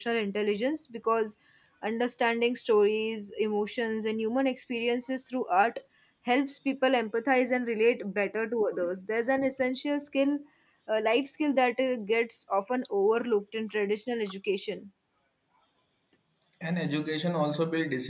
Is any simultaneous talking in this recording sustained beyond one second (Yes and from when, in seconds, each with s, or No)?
No